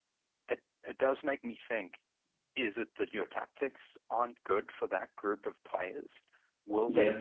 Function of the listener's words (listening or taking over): listening